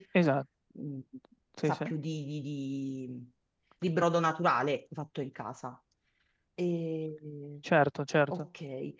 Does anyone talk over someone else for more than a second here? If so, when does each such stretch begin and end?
none

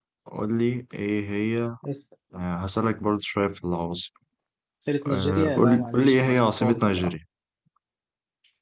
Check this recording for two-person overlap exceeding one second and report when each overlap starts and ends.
5.1-7.1

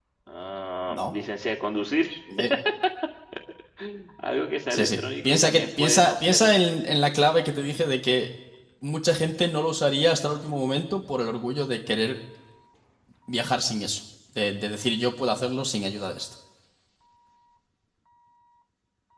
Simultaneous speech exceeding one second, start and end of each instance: 4.7-6.6

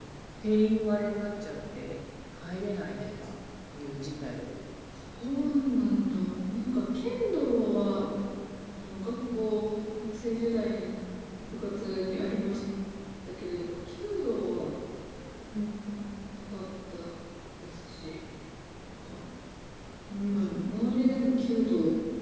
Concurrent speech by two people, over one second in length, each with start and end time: none

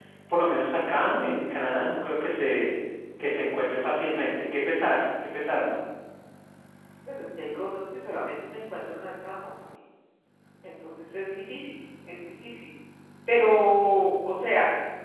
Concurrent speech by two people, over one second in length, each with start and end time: none

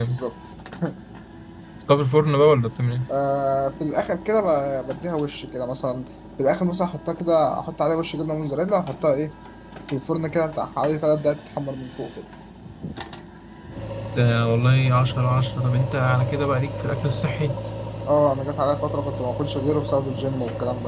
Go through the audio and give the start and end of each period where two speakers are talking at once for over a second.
none

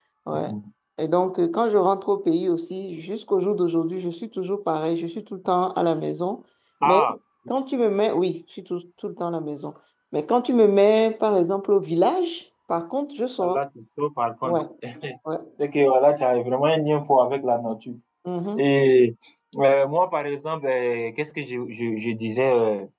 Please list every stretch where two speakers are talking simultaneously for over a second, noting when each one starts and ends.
none

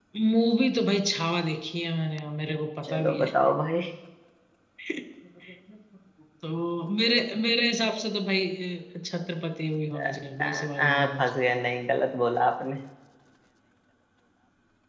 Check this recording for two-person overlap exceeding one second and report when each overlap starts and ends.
10.0-11.2

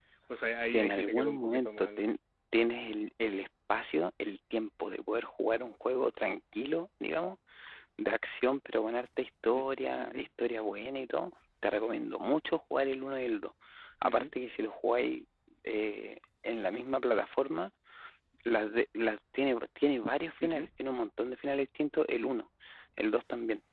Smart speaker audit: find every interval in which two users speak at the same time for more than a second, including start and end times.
0.6-2.1

